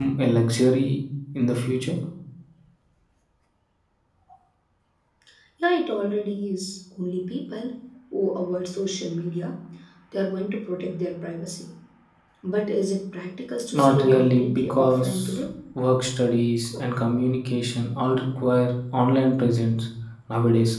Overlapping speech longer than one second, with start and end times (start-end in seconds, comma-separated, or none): 13.7-15.4